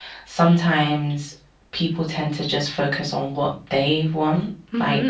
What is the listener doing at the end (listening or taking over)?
taking over